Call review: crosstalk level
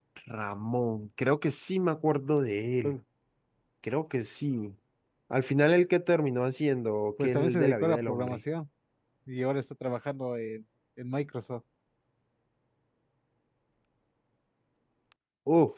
present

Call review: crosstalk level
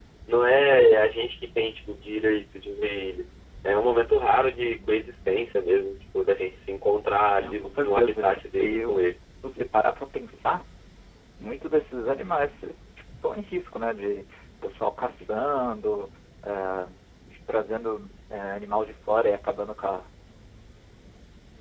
present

